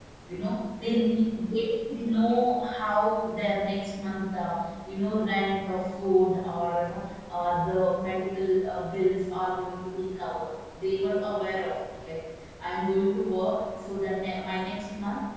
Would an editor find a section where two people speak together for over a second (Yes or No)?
No